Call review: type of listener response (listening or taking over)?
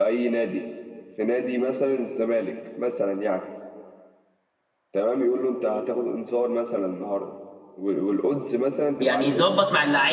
taking over